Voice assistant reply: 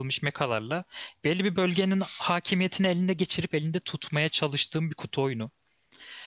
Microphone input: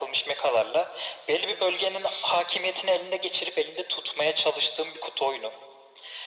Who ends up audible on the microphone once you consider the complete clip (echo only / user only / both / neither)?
echo only